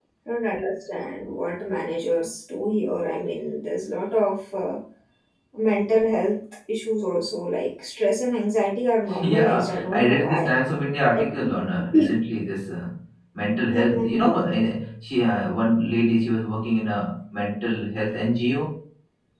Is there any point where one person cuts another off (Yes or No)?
Yes